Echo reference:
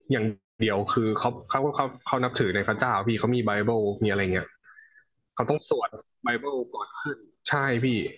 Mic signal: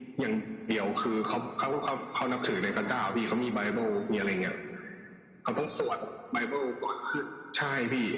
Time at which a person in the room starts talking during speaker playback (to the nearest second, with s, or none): none